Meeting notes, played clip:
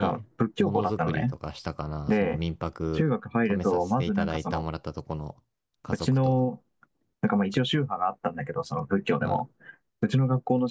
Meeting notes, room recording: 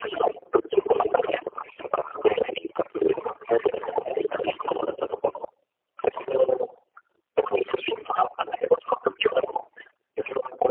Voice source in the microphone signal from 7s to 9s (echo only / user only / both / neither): echo only